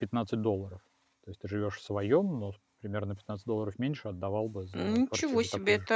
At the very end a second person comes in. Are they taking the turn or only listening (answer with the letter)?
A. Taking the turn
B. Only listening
A